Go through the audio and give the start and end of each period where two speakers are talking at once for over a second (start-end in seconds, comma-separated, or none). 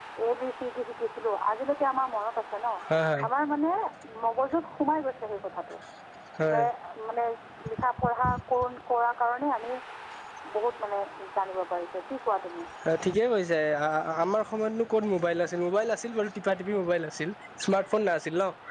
none